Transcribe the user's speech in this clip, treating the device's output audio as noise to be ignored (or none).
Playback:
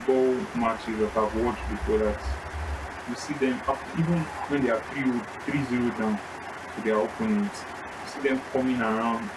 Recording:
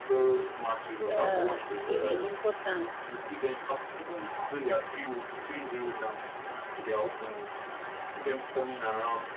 uh, it's really important